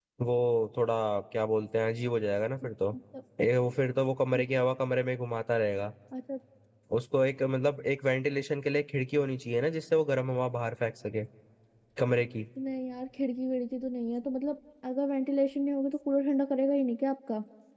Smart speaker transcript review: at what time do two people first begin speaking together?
none

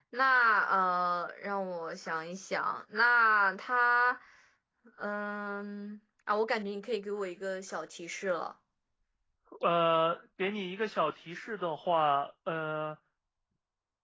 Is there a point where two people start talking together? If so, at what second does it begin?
none

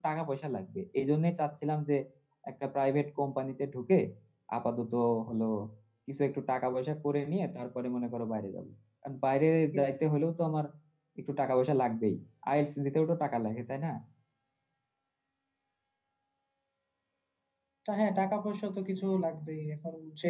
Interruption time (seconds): none

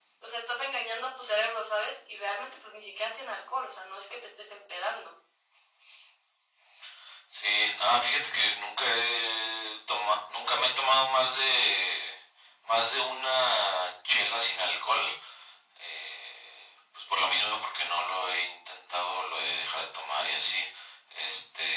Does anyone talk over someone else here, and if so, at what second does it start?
none

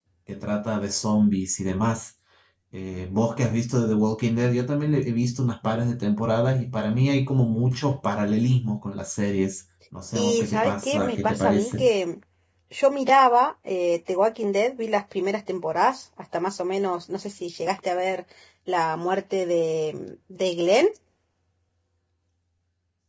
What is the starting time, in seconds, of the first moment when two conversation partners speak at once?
10 s

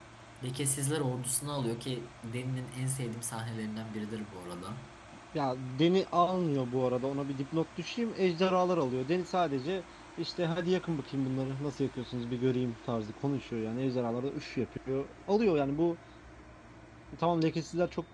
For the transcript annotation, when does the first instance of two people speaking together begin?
none

